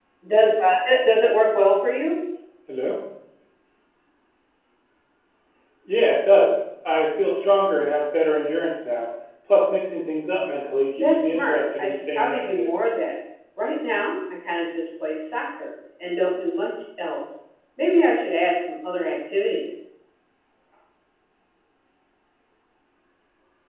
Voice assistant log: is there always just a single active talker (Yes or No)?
No